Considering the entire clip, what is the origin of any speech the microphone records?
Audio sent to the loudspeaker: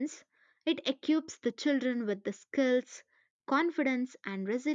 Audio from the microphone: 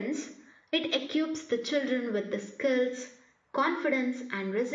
echo only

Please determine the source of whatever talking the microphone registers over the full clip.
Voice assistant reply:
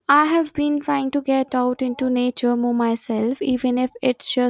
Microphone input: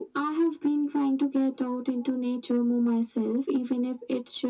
echo only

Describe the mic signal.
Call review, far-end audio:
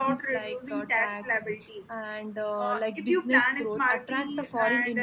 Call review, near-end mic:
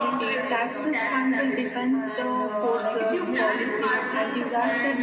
both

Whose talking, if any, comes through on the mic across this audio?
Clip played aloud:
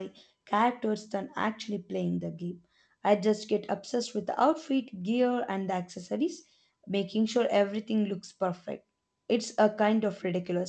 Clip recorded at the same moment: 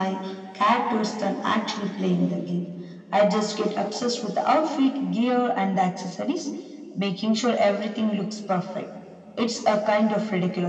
echo only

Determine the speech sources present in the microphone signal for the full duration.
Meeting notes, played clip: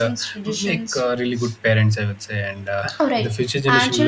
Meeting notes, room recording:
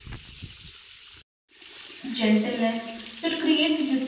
user only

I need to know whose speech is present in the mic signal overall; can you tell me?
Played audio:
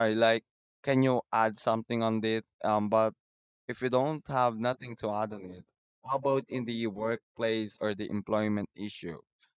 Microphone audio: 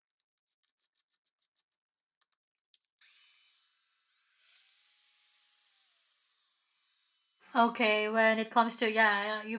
user only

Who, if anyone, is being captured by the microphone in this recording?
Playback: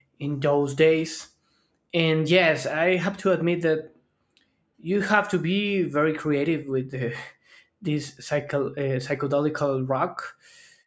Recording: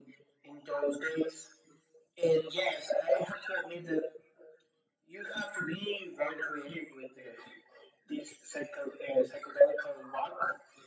echo only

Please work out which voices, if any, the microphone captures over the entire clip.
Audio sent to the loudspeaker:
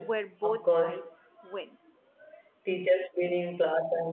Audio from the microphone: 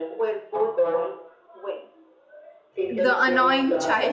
both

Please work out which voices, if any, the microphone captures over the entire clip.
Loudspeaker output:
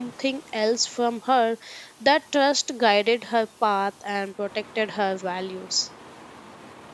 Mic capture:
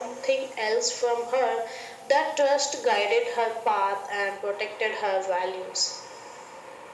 echo only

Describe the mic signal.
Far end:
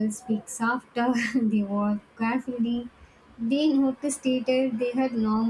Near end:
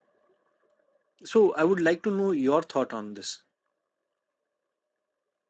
user only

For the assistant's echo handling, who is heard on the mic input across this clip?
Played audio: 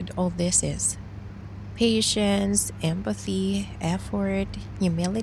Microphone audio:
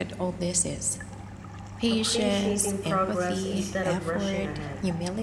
both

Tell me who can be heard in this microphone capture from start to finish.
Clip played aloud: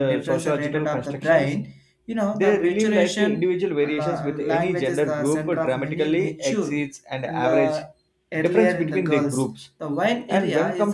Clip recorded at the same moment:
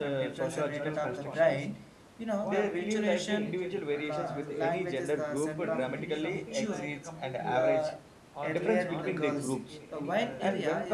both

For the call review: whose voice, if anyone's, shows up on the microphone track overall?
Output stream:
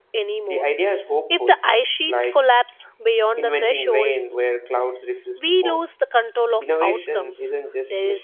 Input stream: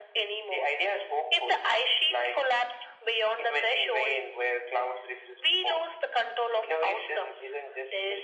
echo only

